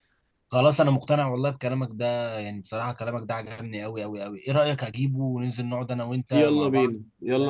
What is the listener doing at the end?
taking over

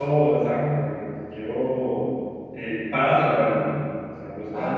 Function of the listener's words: taking over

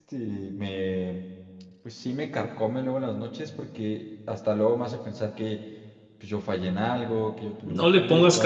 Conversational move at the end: taking over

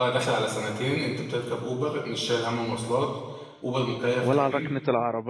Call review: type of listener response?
taking over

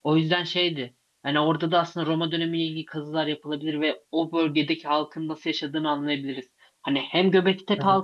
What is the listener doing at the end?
listening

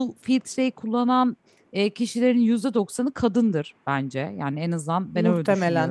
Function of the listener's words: listening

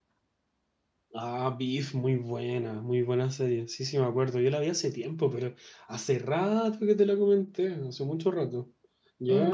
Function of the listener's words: taking over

